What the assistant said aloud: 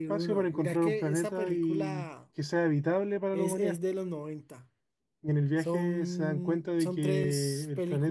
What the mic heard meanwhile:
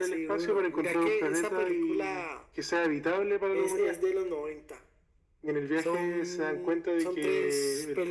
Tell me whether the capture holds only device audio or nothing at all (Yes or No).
Yes